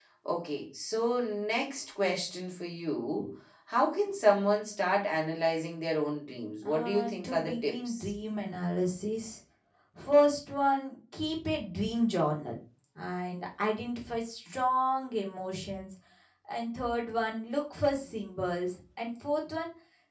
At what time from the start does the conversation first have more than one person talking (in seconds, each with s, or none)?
6.7 s